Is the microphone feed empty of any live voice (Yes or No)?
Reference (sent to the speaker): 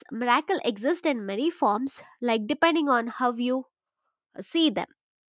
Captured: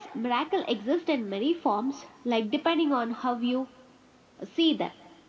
Yes